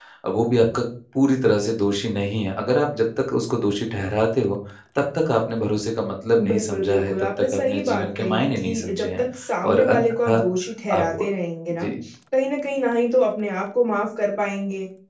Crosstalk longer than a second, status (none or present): present